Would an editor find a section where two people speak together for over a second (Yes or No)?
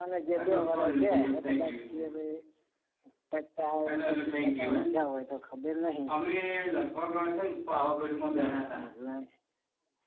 Yes